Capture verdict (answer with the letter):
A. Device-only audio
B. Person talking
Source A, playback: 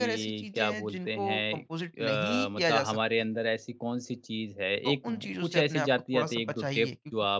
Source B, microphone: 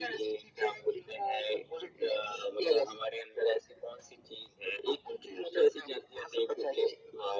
A